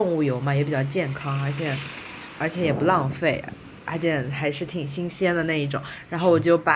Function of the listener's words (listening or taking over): listening